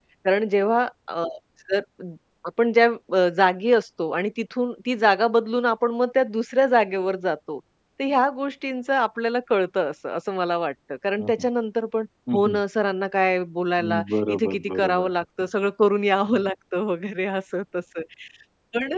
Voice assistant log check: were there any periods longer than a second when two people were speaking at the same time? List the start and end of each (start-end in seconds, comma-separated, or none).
13.8-15.1